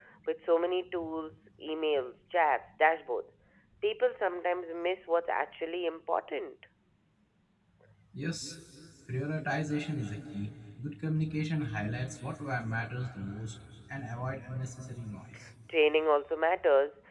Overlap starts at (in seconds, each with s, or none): none